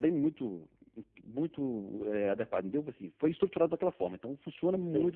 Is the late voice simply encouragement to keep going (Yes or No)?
Yes